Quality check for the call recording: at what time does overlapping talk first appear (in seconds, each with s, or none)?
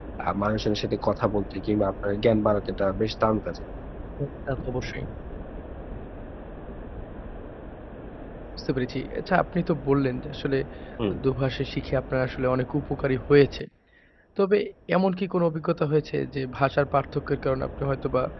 none